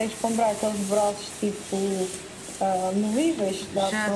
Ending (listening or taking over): taking over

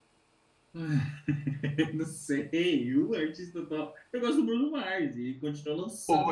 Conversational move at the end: listening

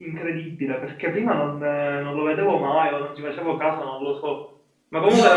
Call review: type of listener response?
listening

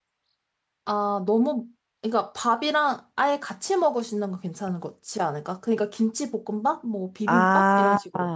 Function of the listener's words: taking over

